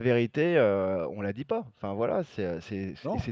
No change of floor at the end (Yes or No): Yes